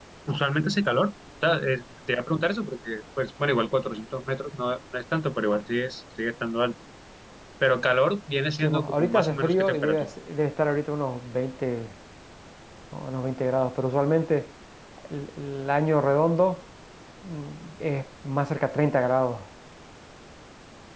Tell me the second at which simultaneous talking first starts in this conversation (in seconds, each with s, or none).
8.6 s